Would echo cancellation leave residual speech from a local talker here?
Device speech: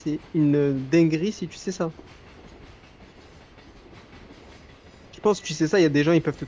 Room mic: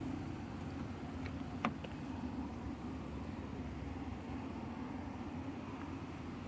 No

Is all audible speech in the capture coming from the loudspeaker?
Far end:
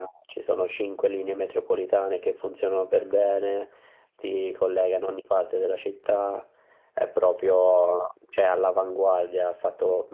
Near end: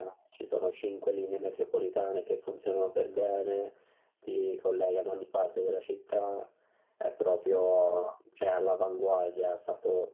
Yes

